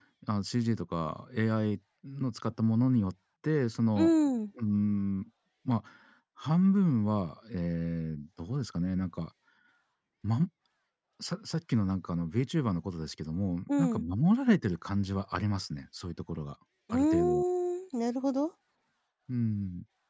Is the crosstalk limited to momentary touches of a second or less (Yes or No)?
Yes